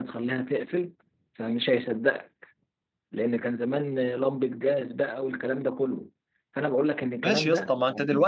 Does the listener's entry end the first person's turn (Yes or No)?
Yes